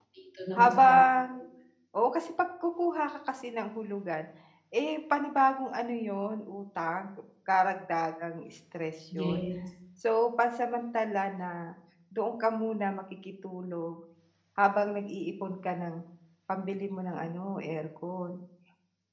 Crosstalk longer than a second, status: none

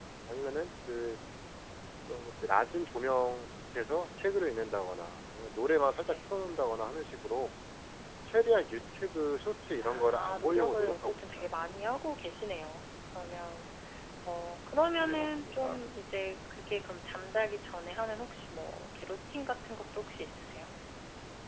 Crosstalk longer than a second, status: present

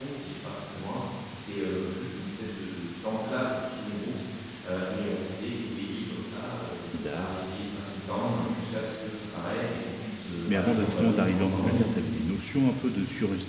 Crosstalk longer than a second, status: present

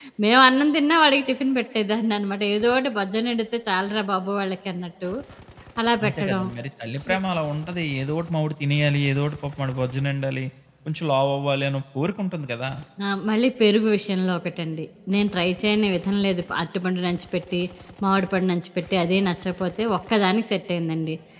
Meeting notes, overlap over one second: none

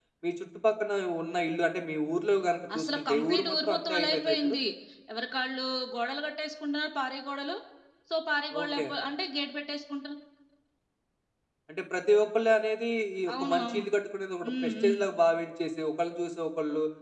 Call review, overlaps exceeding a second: present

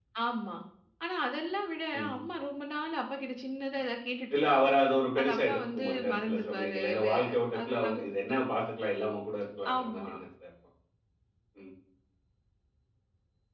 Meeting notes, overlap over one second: present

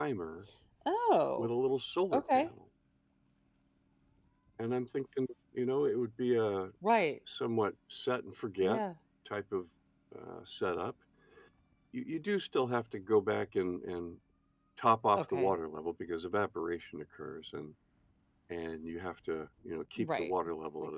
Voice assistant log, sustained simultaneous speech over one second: none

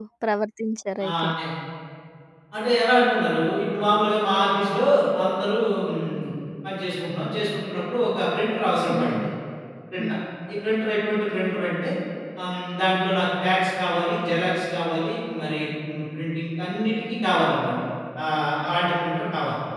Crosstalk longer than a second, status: none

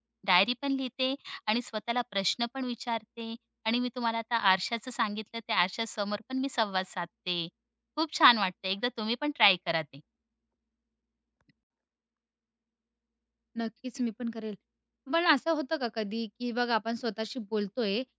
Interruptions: none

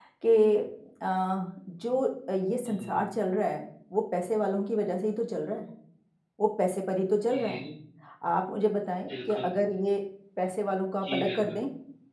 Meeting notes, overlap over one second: none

